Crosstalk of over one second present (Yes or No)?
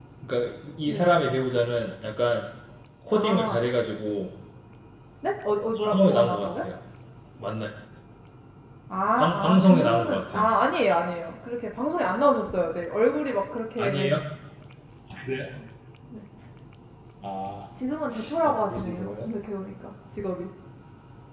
Yes